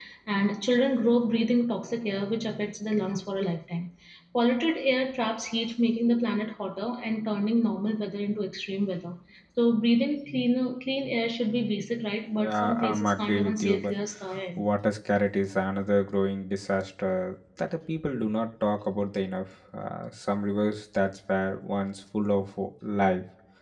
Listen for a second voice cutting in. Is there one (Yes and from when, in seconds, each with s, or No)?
Yes, from 12.4 s